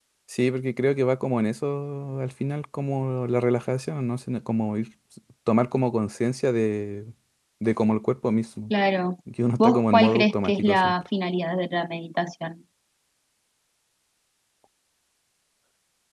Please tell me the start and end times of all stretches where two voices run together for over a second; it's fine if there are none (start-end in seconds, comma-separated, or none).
9.6-10.9